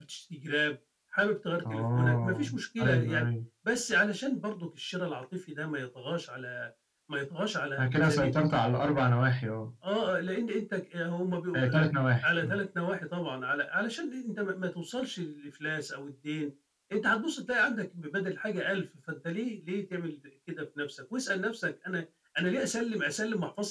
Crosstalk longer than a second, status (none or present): present